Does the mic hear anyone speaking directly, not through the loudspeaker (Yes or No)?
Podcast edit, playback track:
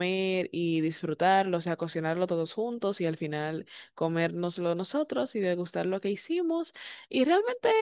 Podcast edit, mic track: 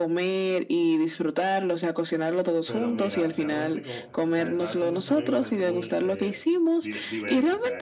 Yes